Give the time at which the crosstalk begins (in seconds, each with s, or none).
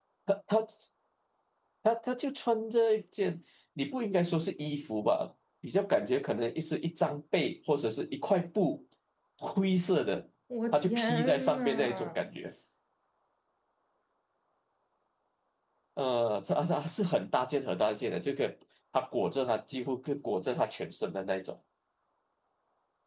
10.7 s